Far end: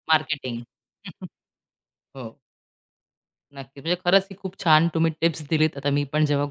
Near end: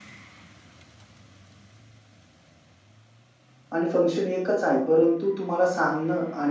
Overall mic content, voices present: user only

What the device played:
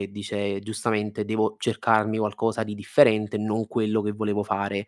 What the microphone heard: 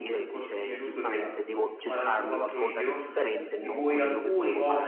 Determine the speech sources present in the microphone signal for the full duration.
both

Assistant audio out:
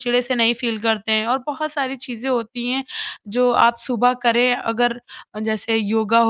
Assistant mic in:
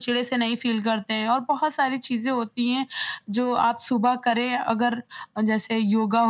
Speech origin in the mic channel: echo only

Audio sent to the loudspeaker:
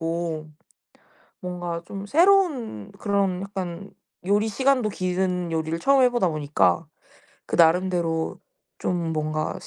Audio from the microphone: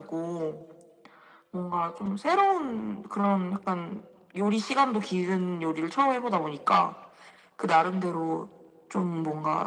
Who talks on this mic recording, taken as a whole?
echo only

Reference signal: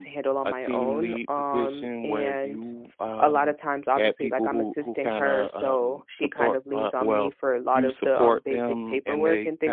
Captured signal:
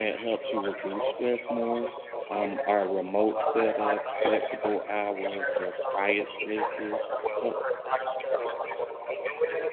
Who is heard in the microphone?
both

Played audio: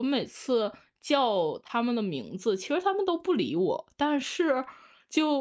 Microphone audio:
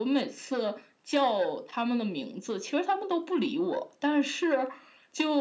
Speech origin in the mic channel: echo only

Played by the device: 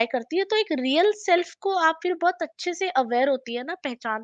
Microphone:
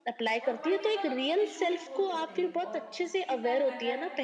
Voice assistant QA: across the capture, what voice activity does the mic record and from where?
both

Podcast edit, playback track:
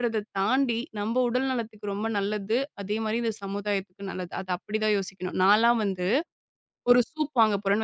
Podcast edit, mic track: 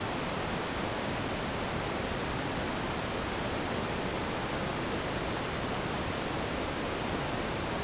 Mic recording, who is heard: neither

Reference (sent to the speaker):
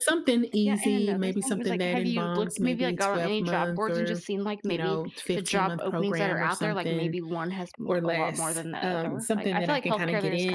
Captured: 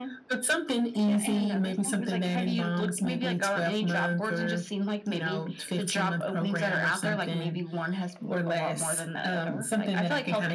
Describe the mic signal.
echo only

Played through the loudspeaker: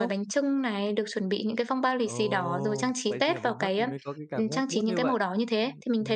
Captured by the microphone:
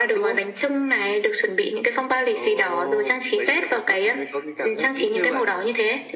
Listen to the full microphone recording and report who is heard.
echo only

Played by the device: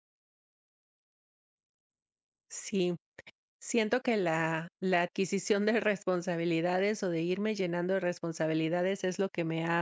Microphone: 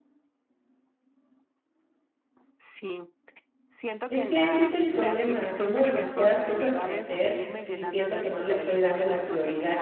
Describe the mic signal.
both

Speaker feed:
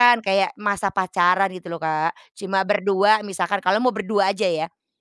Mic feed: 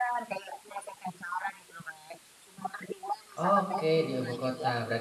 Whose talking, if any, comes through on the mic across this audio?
both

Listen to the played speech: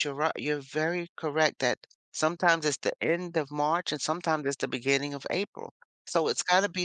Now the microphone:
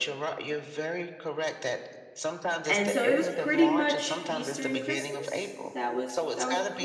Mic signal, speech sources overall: both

